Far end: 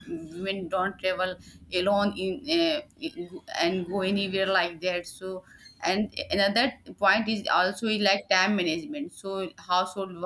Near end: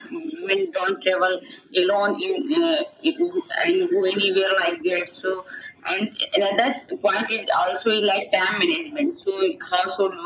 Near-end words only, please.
none

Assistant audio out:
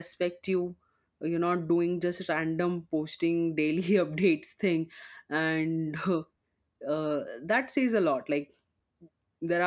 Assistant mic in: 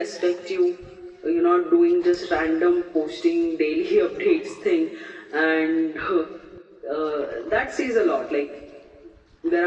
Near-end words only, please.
none

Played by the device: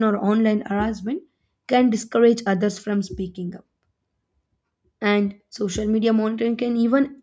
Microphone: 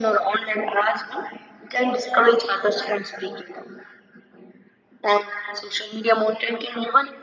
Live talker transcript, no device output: none

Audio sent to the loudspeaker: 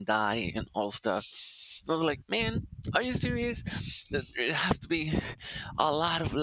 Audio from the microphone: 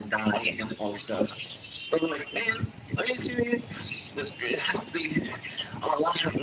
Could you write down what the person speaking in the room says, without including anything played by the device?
none

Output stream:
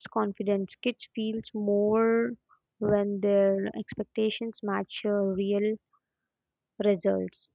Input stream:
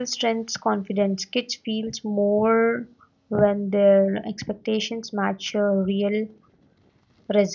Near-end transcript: none

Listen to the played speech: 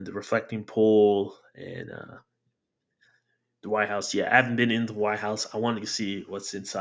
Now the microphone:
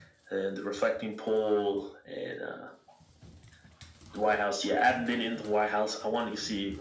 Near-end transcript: none

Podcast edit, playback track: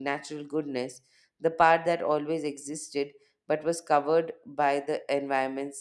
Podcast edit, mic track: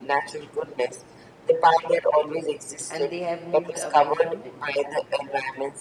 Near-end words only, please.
and they have moved away from it.

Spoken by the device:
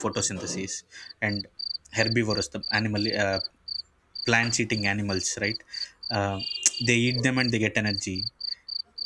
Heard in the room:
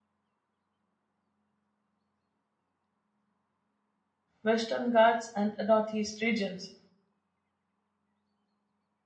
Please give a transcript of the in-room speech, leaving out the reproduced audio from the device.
Western Ghats and Northeast regions.

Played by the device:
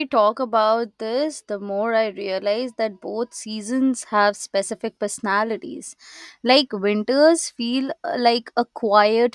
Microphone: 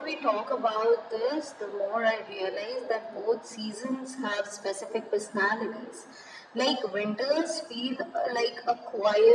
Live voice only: none

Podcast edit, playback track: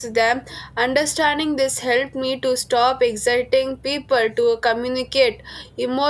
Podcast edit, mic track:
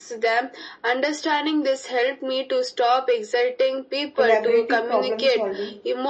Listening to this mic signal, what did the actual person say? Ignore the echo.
collaborative problem solving.

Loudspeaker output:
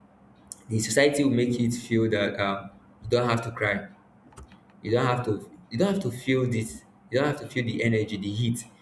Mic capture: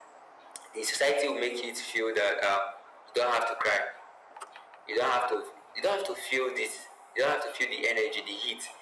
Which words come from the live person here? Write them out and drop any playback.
none

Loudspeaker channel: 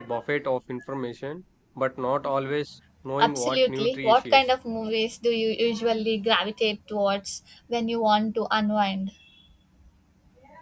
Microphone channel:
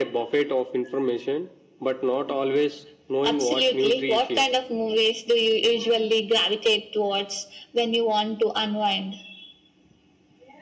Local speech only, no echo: none

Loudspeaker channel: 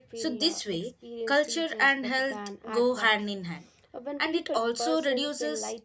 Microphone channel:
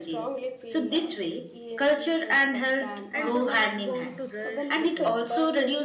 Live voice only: and do not want to rush the process.

